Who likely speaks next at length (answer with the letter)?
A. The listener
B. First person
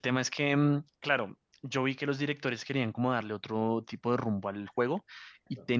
B